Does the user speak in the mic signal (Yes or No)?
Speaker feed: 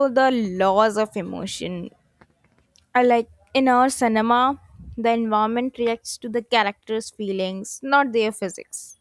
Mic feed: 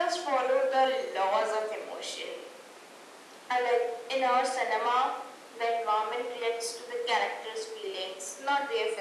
No